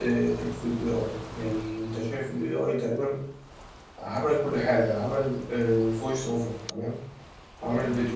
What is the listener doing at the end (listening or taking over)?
listening